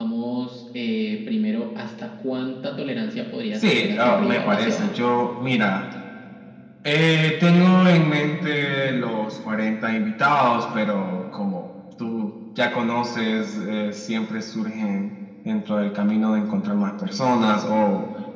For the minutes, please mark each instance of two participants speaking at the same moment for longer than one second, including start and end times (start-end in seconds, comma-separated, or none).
3.5-4.9